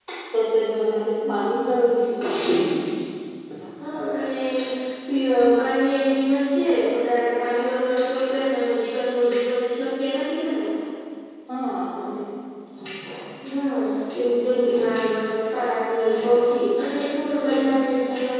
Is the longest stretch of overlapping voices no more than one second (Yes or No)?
Yes